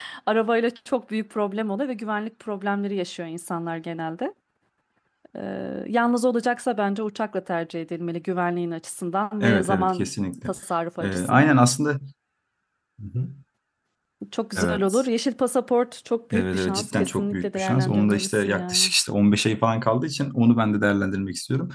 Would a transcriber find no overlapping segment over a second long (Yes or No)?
No